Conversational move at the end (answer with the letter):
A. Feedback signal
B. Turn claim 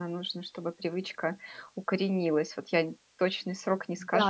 B